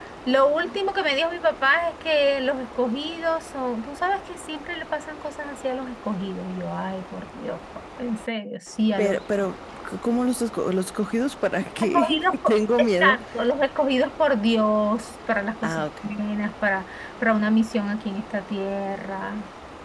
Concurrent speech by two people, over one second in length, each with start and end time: 11.8-13.2

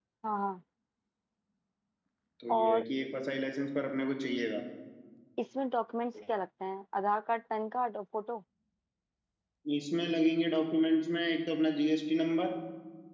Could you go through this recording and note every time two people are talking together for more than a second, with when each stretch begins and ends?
none

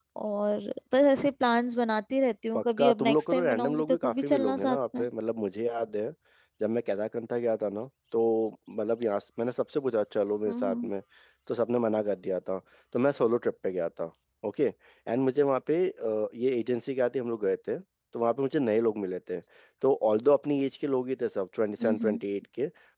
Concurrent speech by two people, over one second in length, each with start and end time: 2.5-5.0

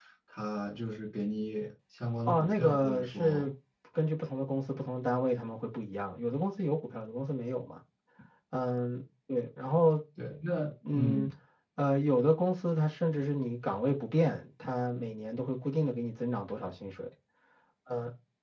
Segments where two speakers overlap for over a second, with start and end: 2.3-3.5

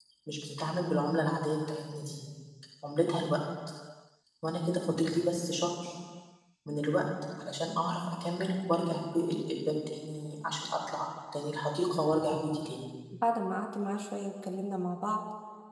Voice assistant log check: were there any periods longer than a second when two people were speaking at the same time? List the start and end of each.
none

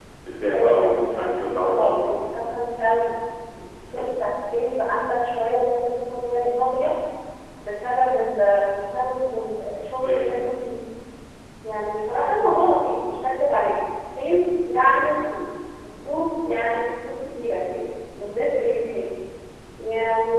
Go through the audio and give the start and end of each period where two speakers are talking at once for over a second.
0.5-2.2

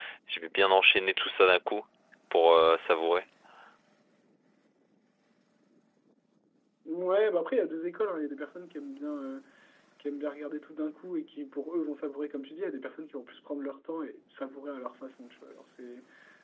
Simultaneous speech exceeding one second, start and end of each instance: none

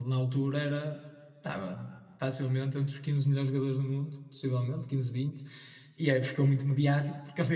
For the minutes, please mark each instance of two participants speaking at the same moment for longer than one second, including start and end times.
none

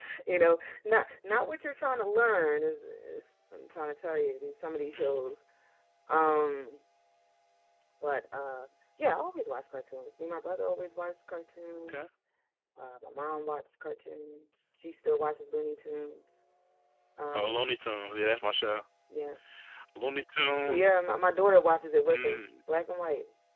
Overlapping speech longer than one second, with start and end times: none

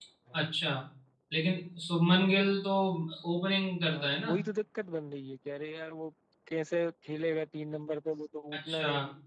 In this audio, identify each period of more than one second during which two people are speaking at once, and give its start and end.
none

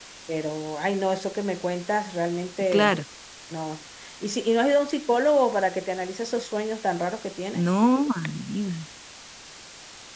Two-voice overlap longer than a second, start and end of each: none

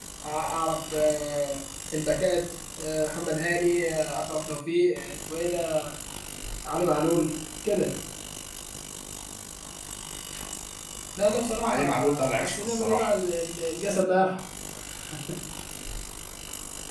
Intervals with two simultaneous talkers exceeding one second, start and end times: 11.3-13.1

